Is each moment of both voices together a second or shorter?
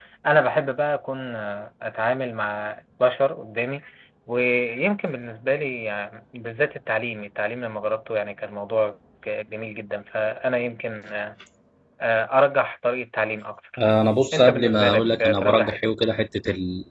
No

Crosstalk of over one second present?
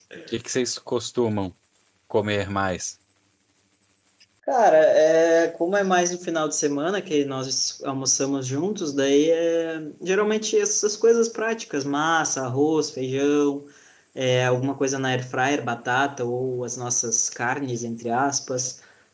No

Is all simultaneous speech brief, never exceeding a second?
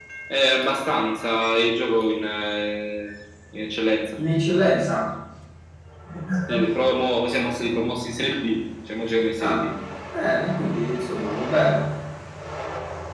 Yes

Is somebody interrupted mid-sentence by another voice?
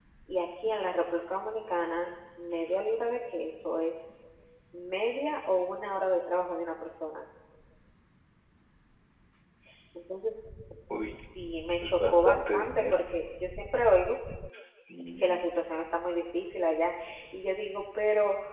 Yes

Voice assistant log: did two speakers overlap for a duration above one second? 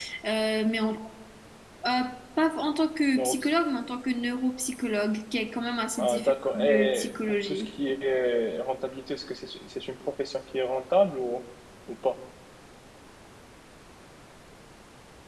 Yes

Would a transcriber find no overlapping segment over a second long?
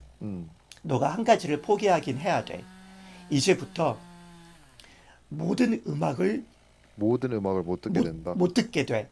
Yes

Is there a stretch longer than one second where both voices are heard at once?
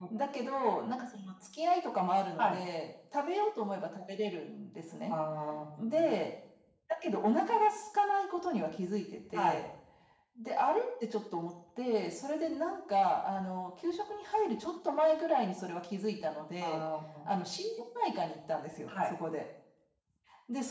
No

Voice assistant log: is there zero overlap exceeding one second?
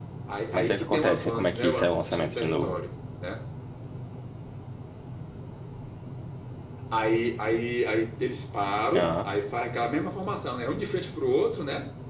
No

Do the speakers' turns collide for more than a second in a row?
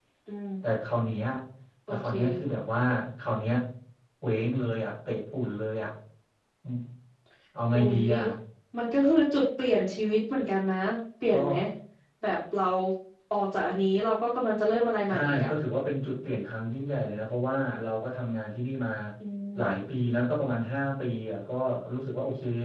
No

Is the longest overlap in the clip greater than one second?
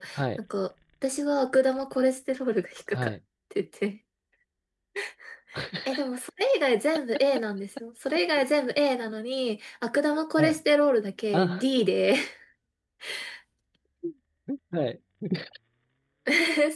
No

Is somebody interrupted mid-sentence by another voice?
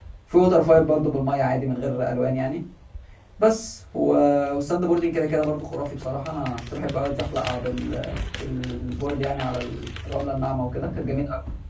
No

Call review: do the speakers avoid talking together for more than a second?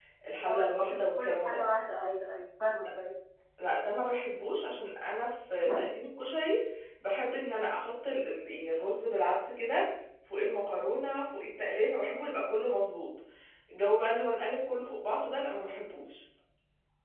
No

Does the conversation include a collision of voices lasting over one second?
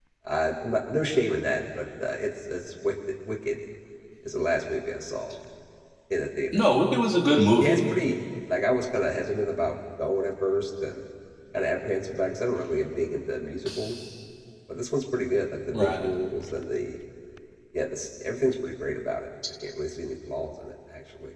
No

